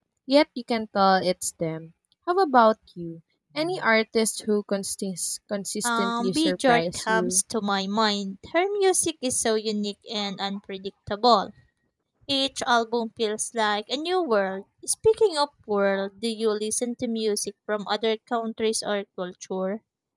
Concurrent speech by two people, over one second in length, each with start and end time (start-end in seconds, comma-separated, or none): 5.8-7.4